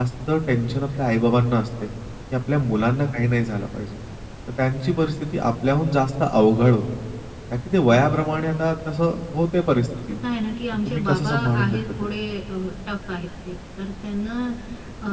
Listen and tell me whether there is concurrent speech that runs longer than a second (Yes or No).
Yes